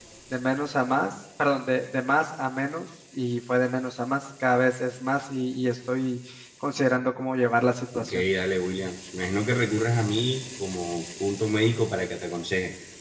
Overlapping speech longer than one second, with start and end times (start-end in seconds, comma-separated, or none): none